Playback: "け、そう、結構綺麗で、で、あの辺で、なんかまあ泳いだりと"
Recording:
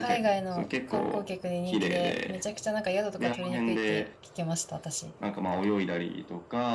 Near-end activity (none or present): present